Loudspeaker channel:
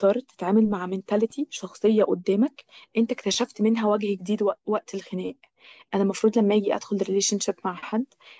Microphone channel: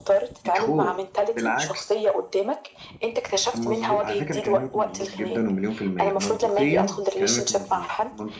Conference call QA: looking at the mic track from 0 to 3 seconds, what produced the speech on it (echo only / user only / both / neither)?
both